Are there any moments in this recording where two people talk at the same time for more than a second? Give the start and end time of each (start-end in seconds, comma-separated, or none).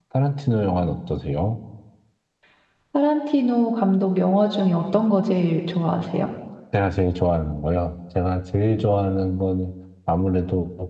none